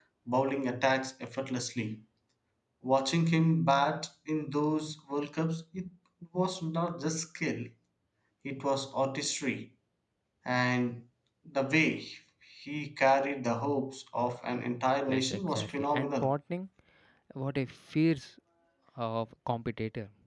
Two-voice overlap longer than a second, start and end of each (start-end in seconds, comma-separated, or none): 15.1-16.3